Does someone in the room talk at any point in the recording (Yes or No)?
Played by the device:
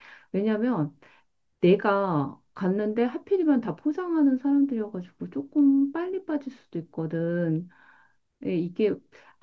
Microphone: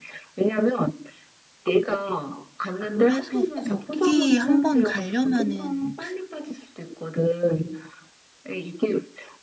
Yes